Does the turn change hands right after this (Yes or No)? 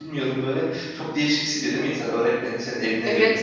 Yes